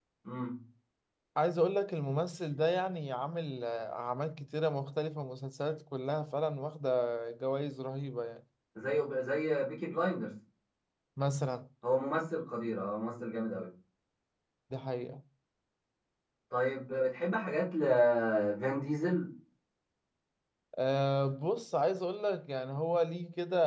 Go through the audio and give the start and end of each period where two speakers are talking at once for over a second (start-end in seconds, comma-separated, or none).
none